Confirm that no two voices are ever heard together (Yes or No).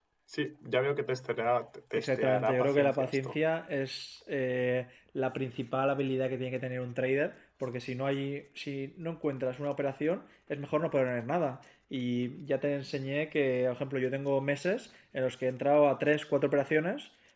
No